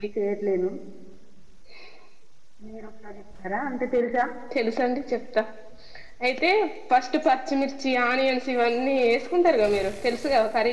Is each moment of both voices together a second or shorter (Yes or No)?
Yes